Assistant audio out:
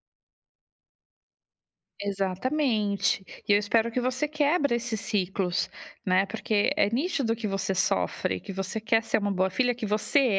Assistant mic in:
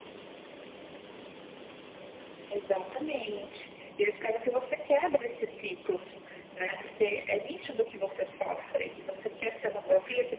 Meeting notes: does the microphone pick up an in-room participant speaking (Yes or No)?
No